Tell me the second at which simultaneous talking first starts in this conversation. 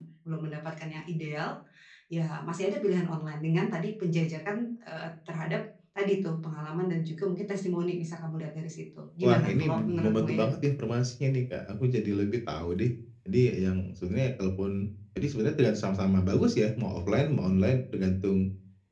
9.2 s

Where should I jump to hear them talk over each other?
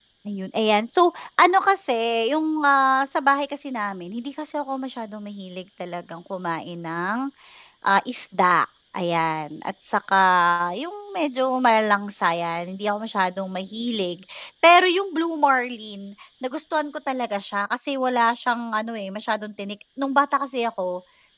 none

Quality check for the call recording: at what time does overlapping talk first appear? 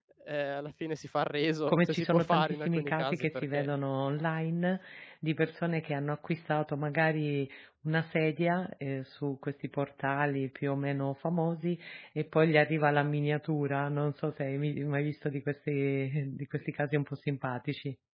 1.7 s

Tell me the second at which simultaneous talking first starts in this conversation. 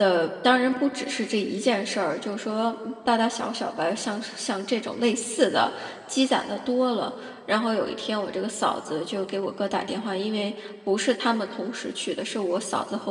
none

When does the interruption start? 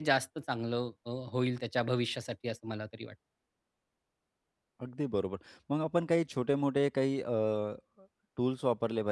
none

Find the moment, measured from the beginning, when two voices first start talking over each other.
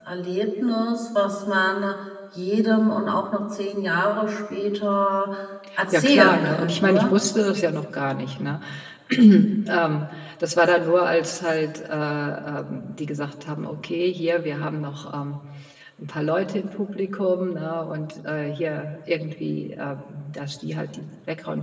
5.9 s

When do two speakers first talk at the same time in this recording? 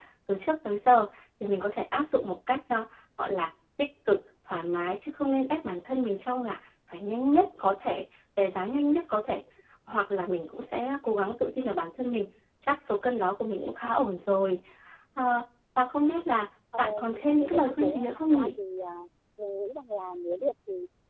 16.7 s

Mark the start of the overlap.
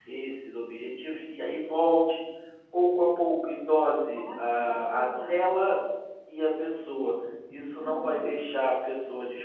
4.1 s

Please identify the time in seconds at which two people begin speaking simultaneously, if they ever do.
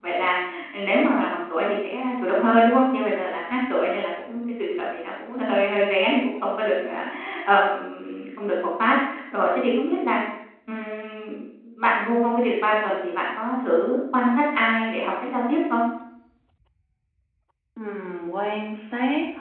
none

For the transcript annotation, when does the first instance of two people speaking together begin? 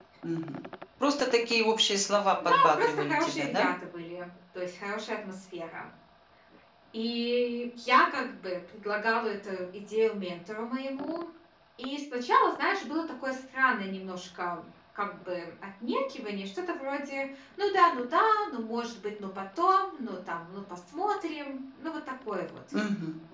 2.4 s

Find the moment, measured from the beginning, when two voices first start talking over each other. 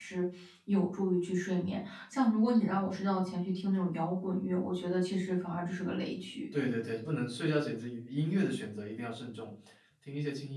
none

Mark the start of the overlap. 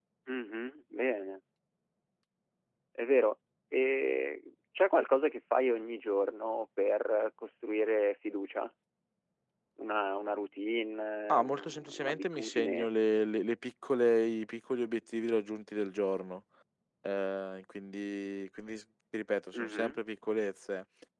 11.3 s

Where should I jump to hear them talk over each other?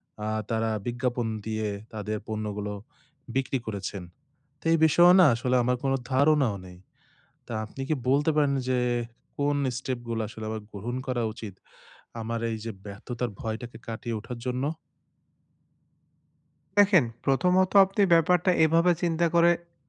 none

